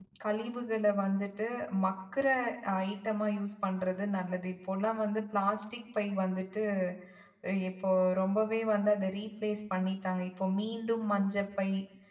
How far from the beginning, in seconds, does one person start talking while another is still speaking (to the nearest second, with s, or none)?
none